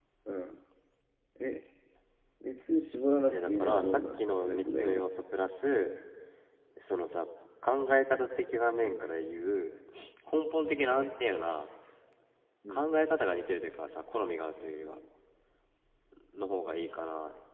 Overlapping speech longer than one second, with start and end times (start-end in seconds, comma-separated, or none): 3.3-5.1